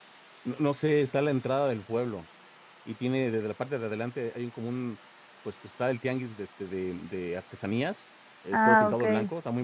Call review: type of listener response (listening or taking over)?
listening